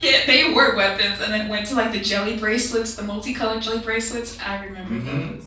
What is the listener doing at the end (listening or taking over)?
taking over